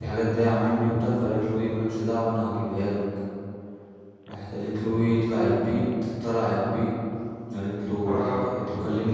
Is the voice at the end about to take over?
No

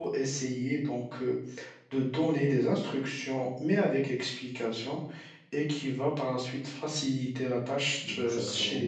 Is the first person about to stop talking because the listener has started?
No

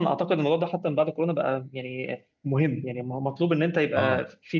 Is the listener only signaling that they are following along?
Yes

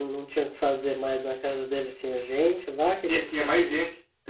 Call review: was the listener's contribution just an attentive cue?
No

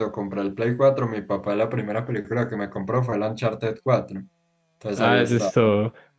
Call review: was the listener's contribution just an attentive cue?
No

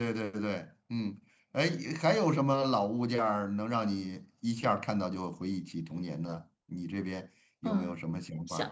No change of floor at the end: No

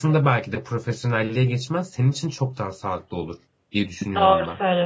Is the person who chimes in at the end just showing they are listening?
No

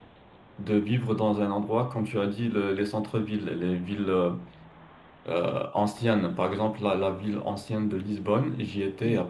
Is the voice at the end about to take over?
No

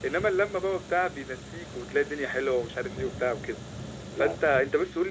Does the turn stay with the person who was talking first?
Yes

